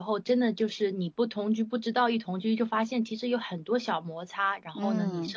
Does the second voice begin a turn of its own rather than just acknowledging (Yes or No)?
No